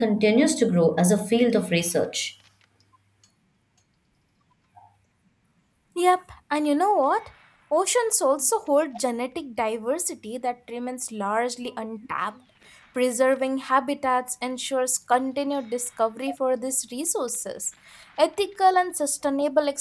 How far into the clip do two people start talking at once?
none

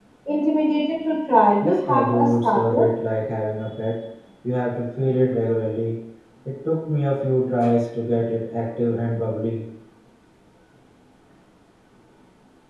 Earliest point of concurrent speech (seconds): 1.6 s

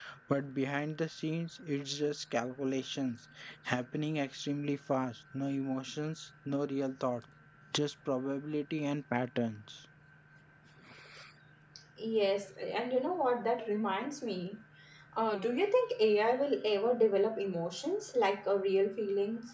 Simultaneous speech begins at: none

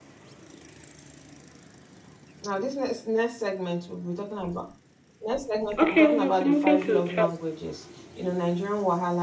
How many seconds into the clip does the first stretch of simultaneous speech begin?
5.8 s

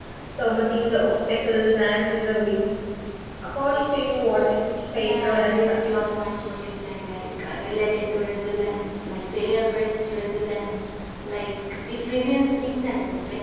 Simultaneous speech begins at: 4.9 s

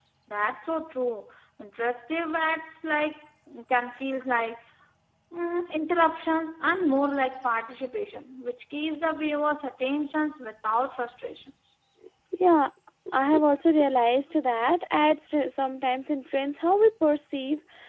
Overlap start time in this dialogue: none

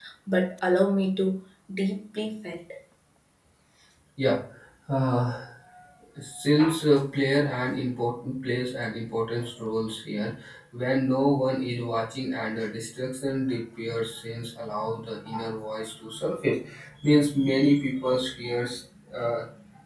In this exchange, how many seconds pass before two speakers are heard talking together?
none

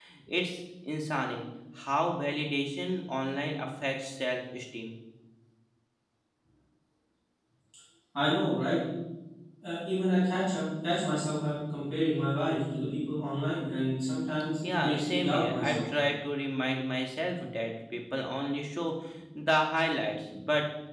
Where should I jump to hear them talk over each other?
14.6 s

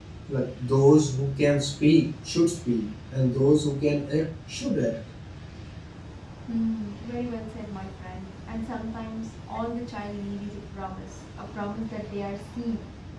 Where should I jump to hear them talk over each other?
none

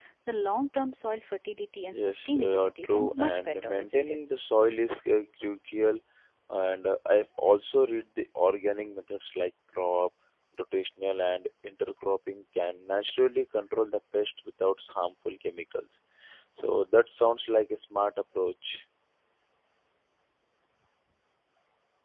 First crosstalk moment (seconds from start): 1.8 s

